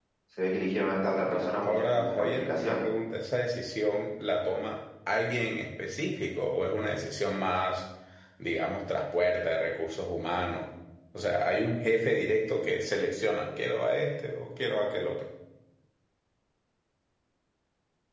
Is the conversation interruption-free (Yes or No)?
No